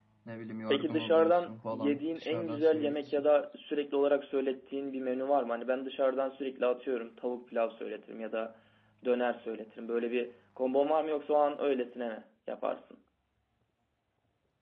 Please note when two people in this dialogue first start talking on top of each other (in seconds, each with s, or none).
0.7 s